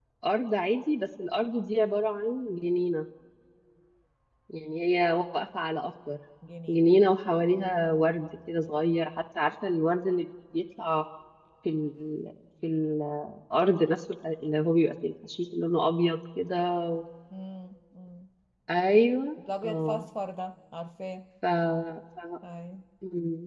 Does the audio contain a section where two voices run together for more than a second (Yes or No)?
No